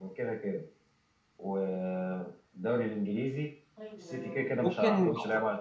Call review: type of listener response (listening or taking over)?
taking over